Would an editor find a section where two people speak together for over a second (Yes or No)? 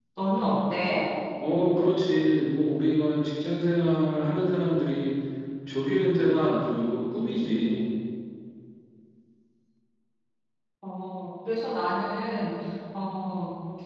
No